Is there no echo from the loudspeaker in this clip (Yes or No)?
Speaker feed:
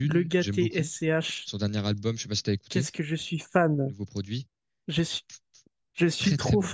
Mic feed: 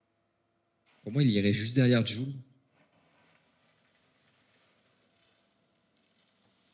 Yes